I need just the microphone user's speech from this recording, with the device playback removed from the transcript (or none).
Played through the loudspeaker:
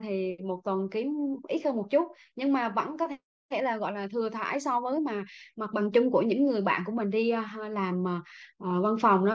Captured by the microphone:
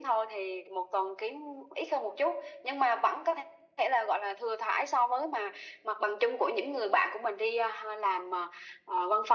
none